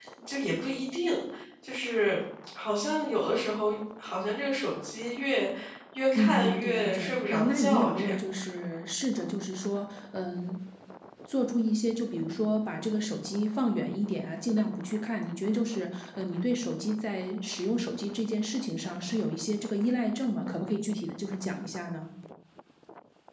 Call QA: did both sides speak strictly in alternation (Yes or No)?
No